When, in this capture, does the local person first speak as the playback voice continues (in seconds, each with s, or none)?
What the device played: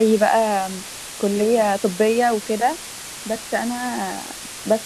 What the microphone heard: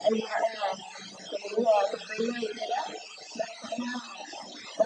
none